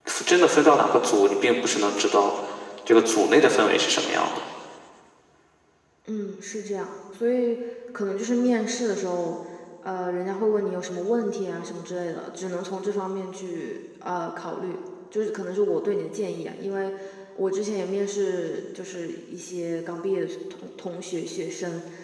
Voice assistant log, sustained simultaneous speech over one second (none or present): none